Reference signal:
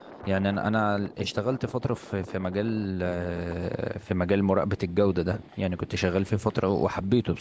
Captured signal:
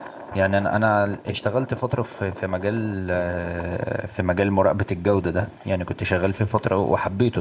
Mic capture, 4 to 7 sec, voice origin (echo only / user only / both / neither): echo only